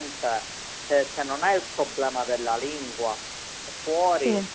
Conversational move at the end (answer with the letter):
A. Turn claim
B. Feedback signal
B